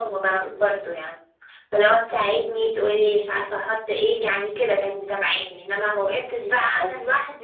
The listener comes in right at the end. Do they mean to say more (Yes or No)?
No